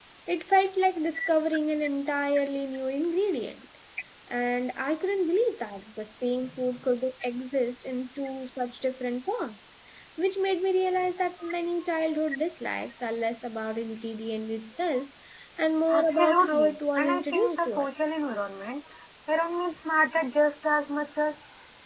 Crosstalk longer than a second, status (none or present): present